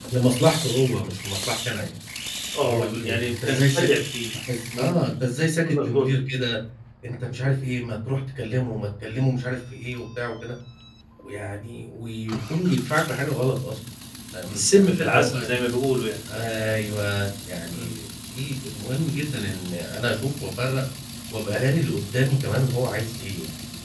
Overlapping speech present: Yes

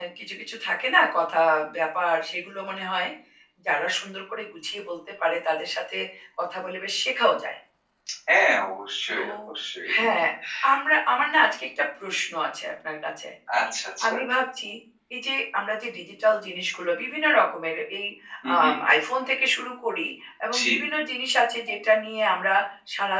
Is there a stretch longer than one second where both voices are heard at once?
No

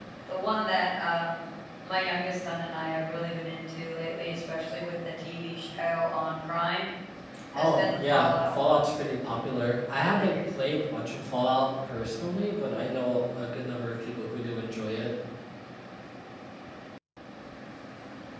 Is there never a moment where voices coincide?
No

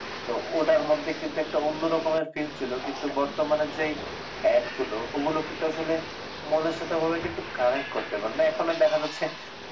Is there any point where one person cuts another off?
No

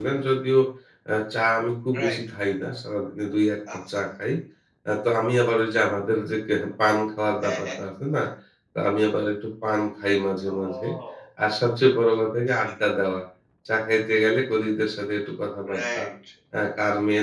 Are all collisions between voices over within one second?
Yes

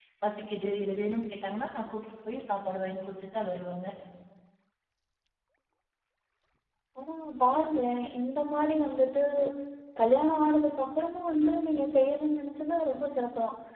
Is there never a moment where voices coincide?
Yes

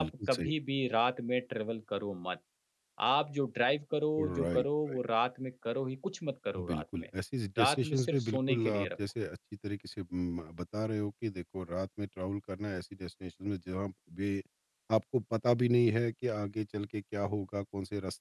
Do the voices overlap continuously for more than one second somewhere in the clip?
Yes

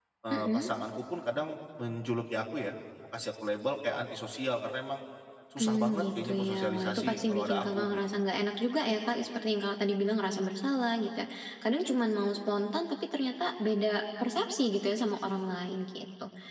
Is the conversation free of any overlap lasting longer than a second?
No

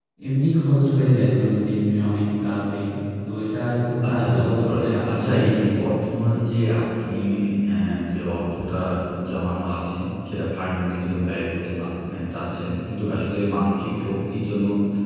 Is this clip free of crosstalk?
No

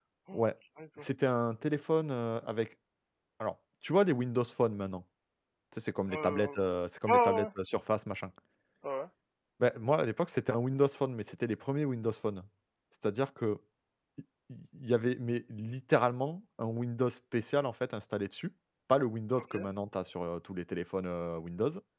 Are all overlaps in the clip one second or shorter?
Yes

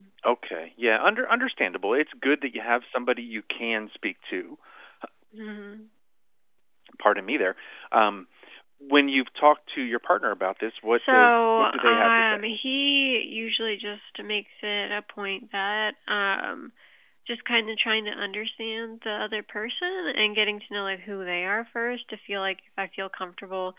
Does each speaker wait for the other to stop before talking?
No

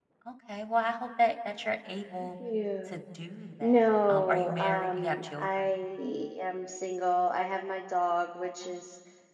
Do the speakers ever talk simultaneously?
Yes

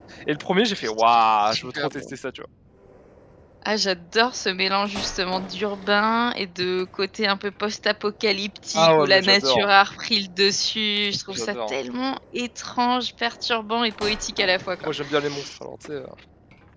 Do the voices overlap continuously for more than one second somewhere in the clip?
Yes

